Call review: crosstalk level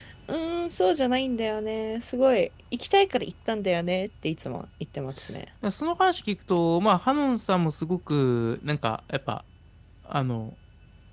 none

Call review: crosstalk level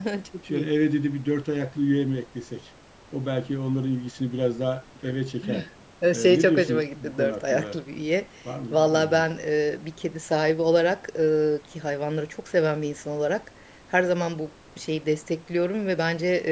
present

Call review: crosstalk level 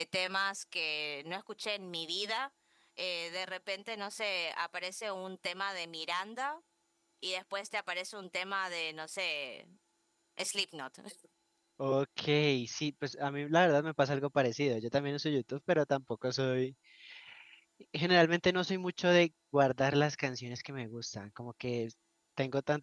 none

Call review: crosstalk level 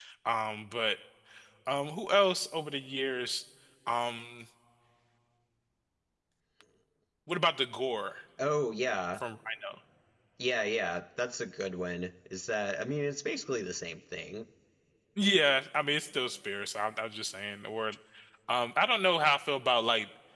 none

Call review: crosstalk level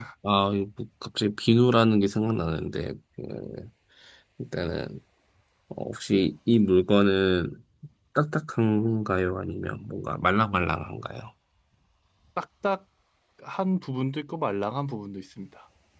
none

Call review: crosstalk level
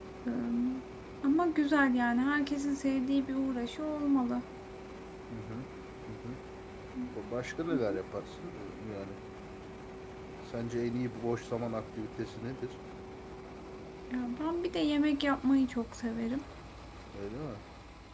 none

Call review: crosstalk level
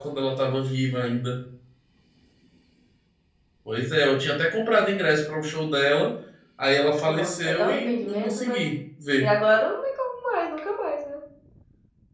present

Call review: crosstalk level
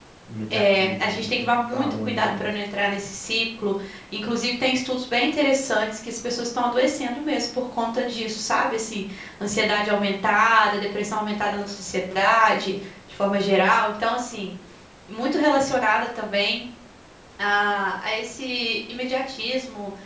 present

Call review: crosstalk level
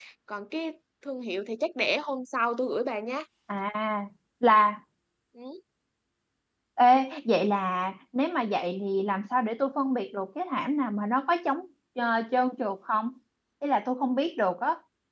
none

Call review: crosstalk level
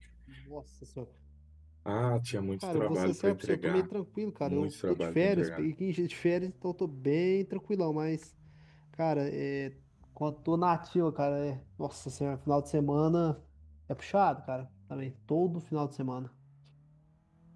present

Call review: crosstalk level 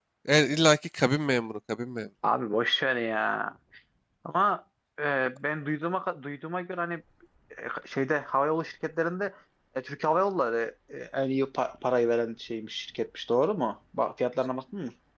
none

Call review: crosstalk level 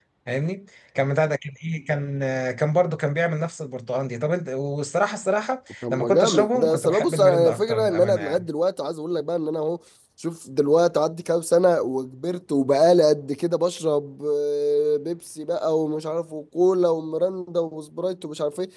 present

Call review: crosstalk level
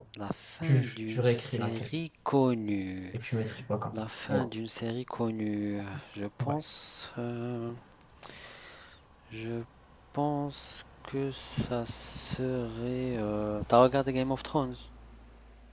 present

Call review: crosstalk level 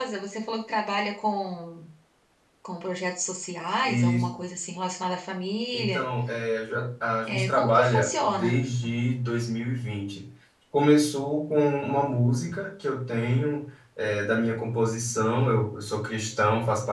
present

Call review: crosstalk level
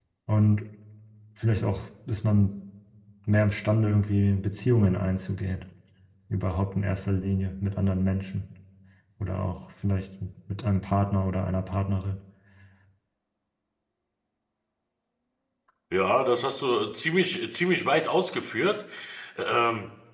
none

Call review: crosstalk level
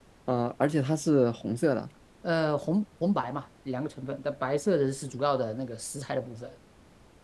none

